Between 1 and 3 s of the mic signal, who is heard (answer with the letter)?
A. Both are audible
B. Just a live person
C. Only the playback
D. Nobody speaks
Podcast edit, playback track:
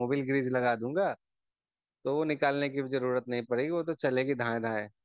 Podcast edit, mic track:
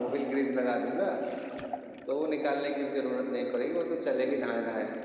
C